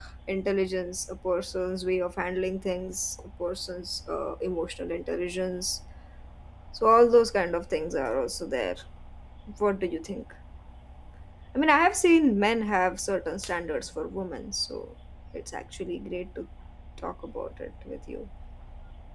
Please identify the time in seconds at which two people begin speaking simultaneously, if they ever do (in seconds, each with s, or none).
none